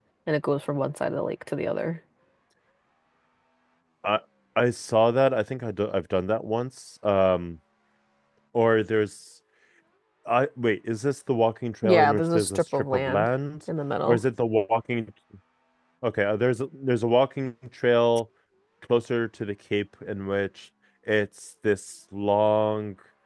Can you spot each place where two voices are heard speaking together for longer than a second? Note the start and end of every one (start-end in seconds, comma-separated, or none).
11.8-13.3